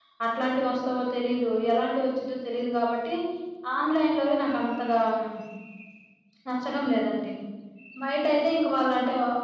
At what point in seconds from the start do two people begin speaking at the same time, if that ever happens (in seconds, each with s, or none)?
none